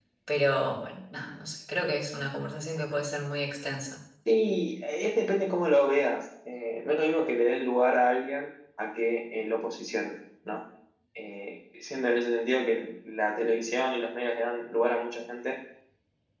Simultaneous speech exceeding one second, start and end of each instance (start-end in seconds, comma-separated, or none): none